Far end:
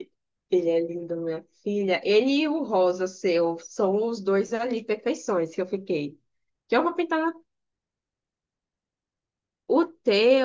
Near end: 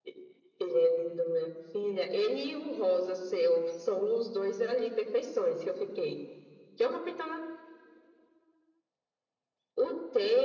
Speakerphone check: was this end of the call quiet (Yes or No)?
Yes